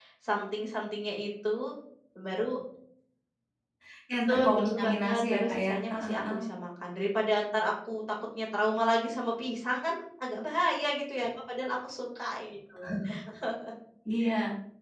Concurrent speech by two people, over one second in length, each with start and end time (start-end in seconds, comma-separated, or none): 4.3-6.2